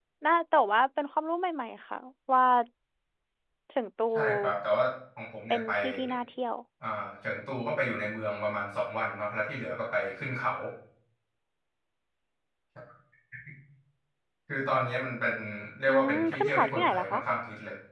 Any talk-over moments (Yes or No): Yes